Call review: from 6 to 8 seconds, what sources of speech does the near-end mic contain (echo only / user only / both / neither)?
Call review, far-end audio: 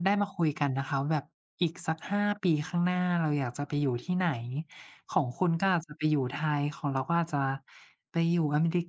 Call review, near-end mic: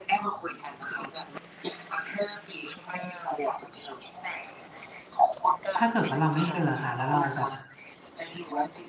both